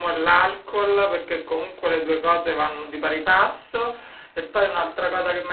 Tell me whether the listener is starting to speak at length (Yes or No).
No